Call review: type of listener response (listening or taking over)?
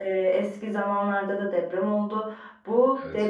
listening